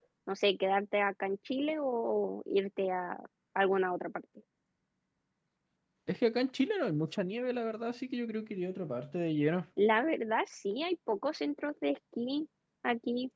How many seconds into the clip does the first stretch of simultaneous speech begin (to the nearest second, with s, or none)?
none